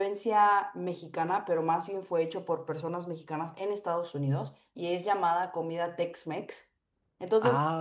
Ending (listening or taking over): listening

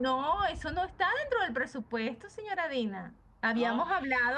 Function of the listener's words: listening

